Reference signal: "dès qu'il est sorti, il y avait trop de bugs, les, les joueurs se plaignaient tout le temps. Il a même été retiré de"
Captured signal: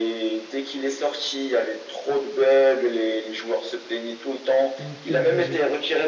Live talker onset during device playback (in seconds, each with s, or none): 4.8 s